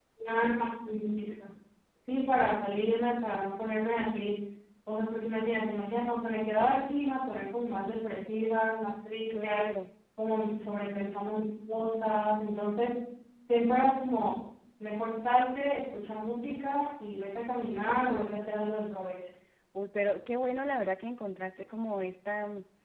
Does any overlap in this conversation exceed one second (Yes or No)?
No